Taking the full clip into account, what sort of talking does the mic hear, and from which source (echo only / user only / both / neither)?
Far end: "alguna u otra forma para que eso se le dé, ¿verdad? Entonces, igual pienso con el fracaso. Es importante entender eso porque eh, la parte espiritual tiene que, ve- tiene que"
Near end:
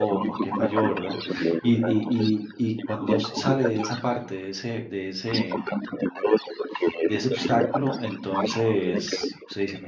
both